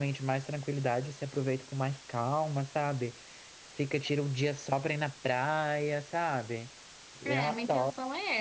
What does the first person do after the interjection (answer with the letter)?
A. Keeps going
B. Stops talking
B